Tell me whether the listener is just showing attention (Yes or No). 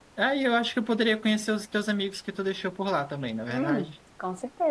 No